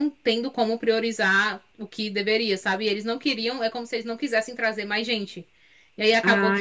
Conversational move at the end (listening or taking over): listening